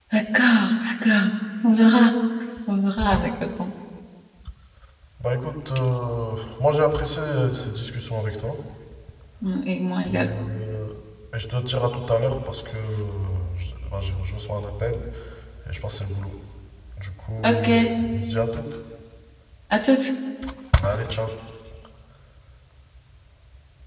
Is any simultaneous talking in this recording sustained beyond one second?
No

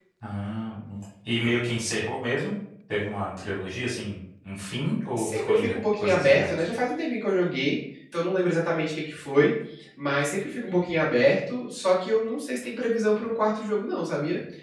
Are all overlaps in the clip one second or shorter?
No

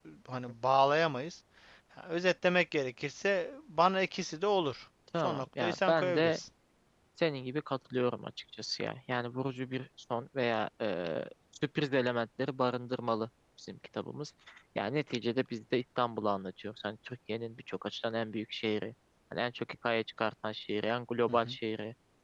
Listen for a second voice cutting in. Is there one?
Yes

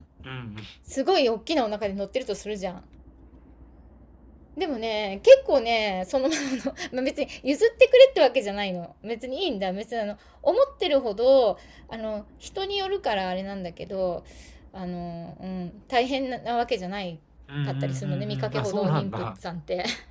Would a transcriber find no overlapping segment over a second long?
No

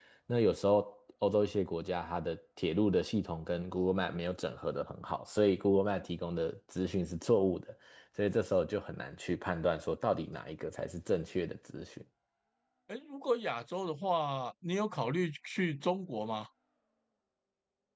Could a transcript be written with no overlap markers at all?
Yes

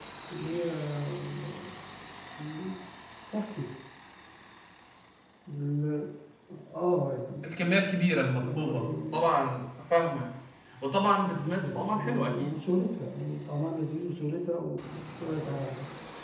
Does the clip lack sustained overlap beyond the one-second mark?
No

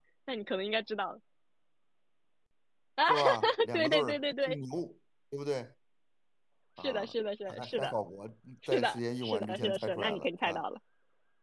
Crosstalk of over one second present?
Yes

